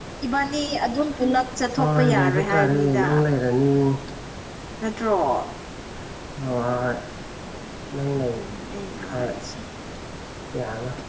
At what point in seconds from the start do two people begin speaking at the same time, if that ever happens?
1.8 s

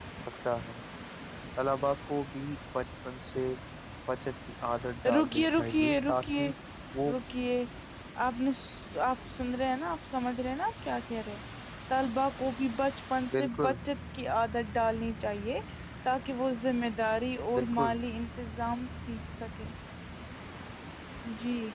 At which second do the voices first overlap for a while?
5.2 s

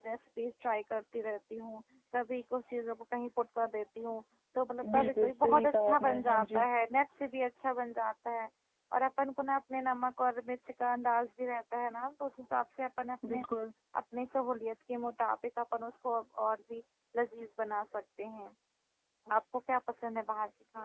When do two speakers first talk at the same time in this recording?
4.8 s

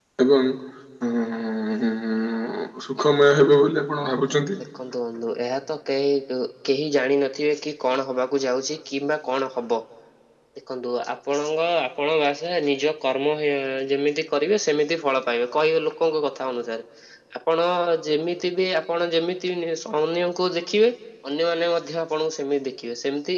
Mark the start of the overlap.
none

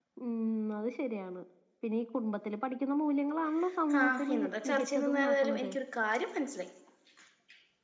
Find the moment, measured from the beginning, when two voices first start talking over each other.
3.9 s

